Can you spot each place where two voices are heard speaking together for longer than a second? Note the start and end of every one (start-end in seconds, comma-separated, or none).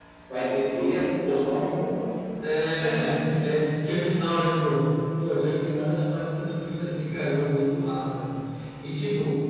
none